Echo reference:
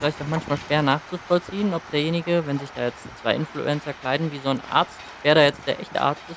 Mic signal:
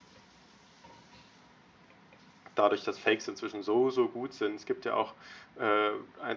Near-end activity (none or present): present